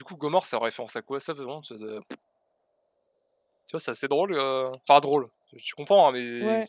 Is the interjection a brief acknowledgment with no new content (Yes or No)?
Yes